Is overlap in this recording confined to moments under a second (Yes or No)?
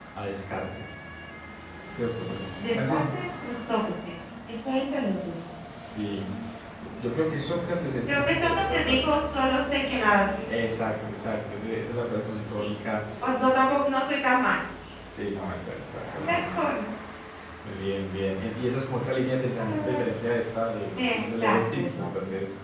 No